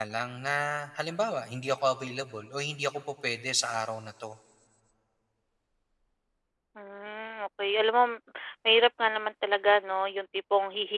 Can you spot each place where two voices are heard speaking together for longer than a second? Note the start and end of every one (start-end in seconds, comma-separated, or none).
none